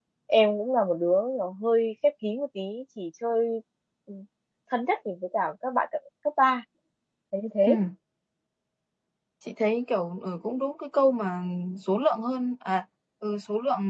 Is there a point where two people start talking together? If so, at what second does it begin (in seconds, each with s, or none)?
none